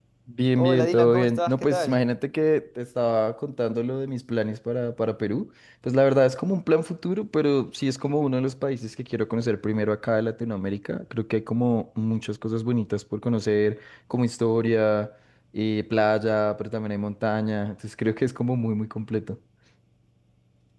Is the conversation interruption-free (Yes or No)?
No